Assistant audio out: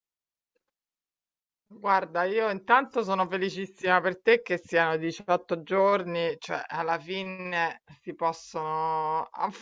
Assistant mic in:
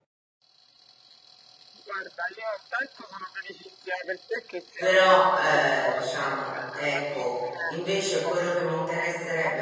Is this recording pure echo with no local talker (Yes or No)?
No